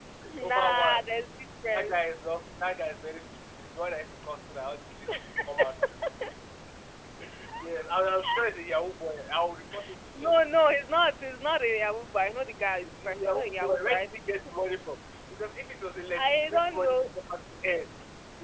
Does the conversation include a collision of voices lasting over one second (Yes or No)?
Yes